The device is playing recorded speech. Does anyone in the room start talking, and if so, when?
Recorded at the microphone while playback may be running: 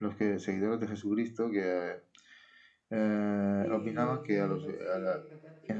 3.6 s

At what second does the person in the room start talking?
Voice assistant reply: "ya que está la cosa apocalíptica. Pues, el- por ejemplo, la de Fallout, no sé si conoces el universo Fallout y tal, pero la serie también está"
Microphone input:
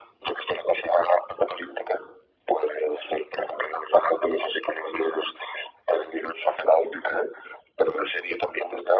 none

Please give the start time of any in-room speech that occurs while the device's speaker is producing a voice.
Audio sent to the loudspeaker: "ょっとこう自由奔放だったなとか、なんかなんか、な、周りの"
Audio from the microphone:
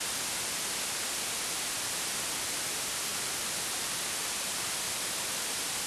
none

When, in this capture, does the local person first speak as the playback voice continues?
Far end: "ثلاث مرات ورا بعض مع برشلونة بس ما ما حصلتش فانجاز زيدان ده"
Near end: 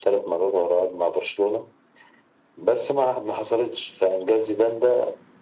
none

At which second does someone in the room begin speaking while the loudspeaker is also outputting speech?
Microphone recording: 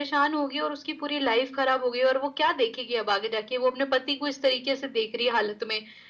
none

